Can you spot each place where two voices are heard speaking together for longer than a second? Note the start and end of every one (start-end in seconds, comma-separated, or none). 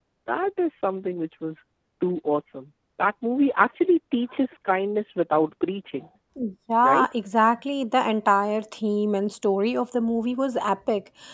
none